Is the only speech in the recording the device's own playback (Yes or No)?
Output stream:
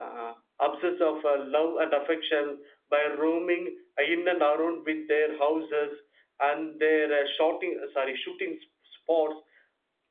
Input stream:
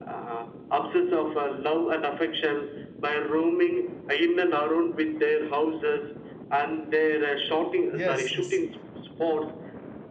No